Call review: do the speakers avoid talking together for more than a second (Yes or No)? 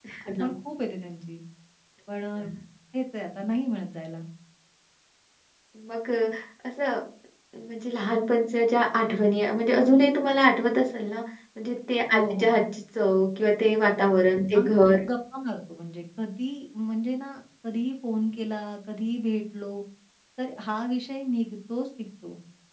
Yes